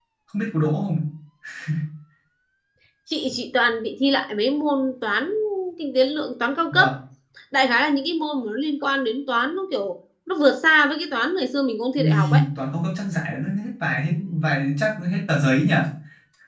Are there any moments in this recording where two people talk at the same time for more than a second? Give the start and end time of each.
none

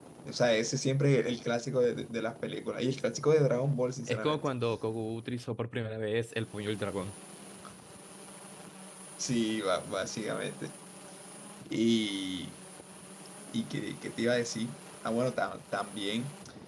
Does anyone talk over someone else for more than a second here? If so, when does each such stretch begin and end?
none

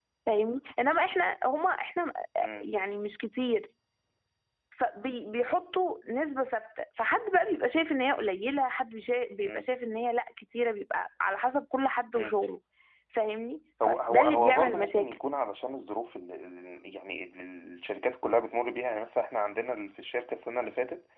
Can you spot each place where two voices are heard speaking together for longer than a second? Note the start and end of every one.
13.8-15.2

